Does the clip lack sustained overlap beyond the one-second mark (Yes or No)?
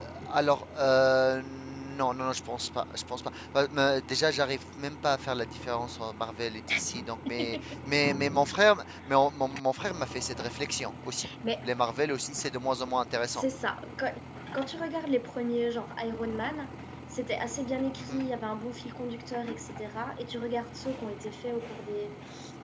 Yes